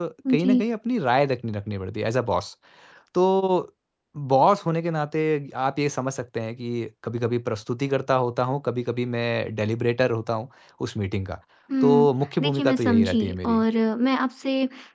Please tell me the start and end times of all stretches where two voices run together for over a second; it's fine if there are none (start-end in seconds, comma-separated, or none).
12.4-13.6